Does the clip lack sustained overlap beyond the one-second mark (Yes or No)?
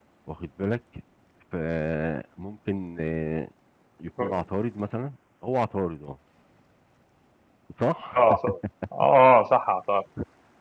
Yes